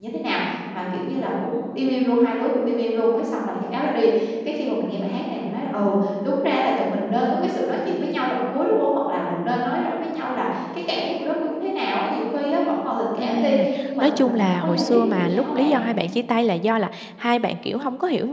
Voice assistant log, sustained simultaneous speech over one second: present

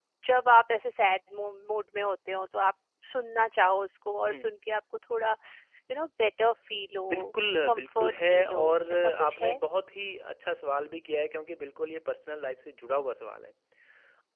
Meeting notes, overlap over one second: present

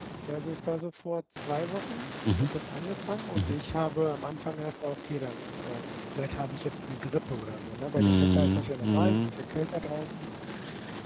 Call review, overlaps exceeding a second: present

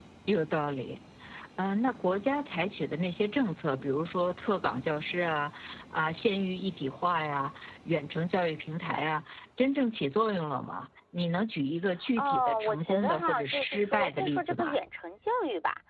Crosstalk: present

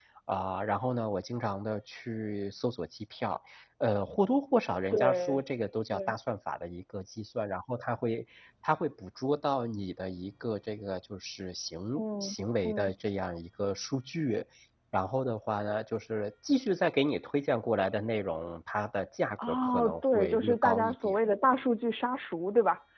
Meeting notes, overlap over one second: present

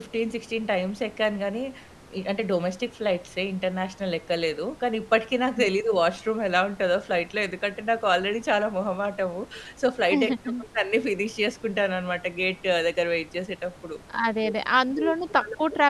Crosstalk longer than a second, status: none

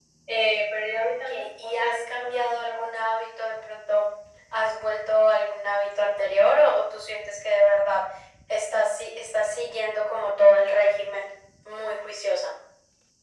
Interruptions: present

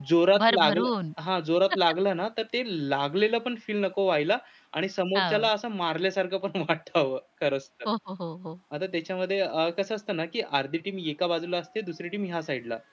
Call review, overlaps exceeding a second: none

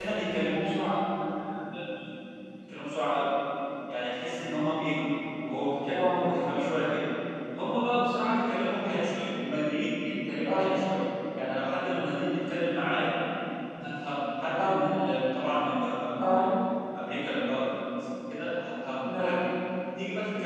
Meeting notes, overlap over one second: none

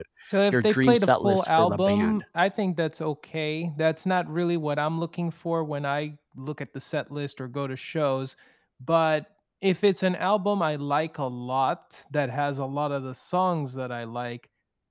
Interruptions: present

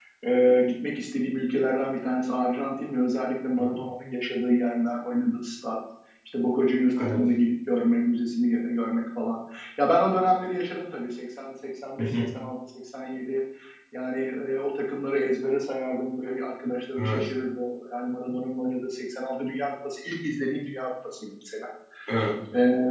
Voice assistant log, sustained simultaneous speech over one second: none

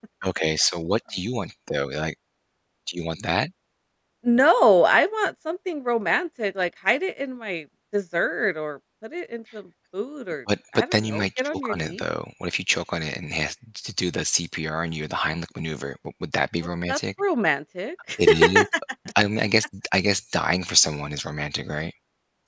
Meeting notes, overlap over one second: present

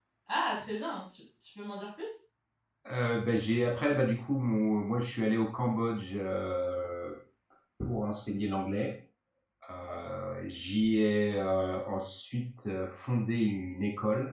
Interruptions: none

